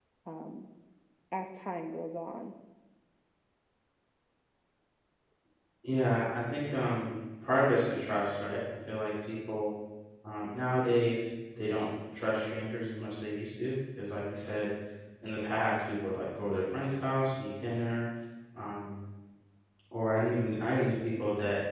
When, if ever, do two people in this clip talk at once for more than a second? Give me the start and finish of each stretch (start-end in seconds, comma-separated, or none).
none